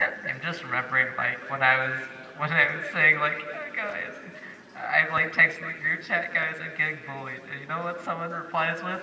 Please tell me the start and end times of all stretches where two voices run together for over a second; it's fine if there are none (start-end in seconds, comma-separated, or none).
none